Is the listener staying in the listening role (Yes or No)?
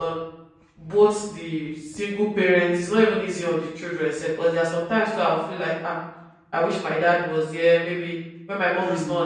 Yes